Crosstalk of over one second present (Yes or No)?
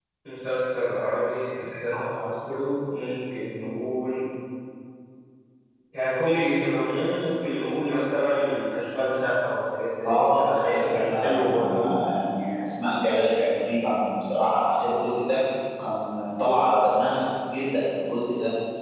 Yes